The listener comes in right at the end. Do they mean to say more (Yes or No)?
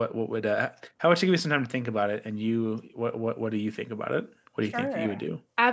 Yes